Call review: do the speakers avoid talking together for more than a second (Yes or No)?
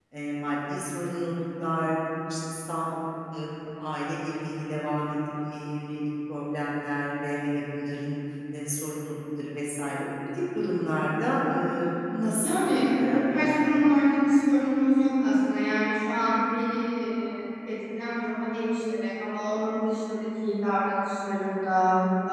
No